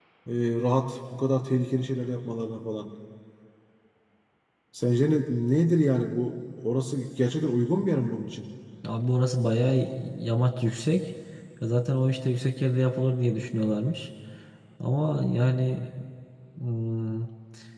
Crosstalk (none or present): none